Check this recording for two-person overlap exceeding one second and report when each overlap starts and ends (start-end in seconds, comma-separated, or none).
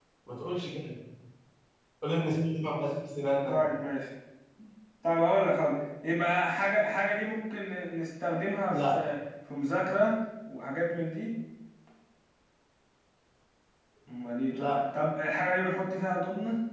none